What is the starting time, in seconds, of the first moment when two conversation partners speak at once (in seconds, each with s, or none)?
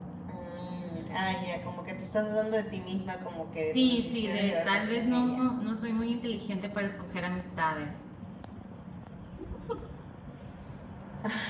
3.7 s